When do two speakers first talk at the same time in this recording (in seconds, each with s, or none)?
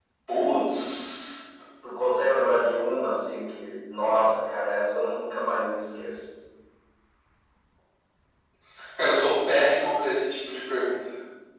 none